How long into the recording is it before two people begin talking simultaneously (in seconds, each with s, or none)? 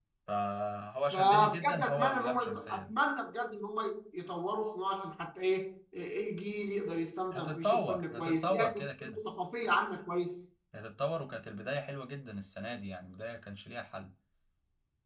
1.1 s